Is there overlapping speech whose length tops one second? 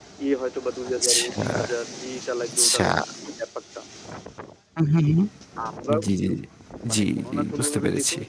Yes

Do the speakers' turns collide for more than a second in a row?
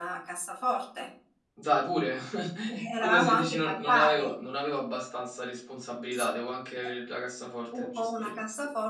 Yes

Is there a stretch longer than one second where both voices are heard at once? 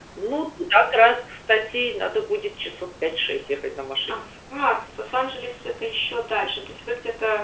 No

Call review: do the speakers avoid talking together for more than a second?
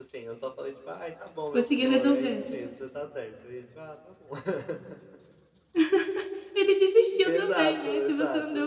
No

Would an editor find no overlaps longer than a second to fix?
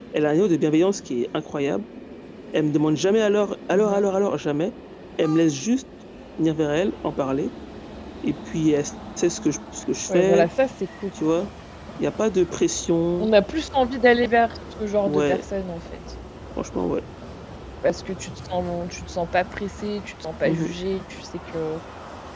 Yes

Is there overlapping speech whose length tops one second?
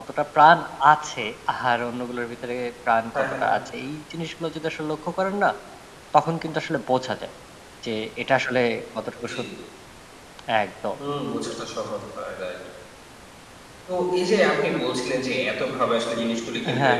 No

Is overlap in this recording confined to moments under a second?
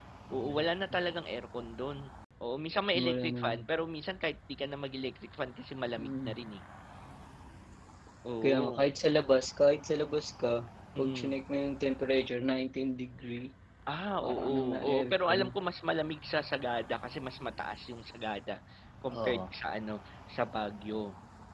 No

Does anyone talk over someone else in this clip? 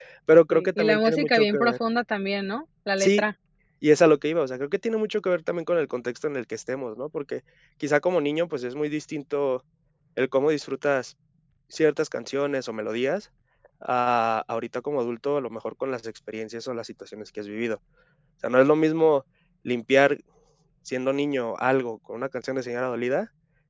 Yes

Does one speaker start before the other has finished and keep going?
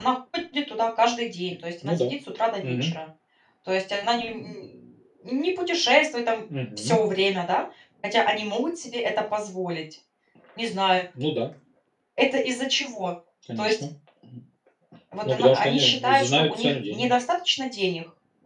Yes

